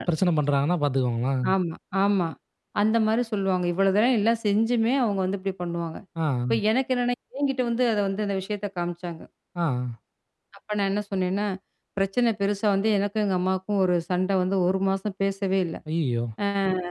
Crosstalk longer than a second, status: none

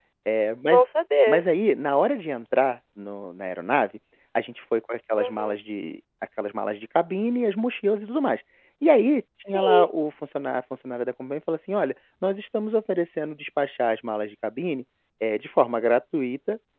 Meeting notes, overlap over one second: none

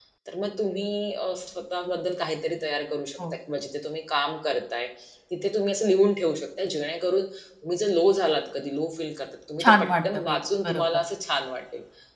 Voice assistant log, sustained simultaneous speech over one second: present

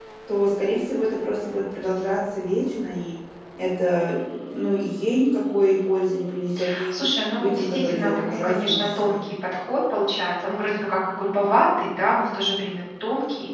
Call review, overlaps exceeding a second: present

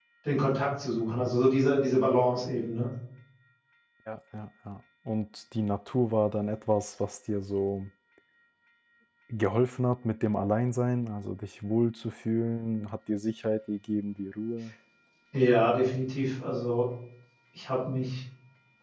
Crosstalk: none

